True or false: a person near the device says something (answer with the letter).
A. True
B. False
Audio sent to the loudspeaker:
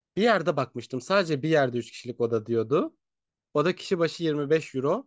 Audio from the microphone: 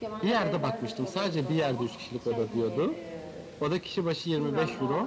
A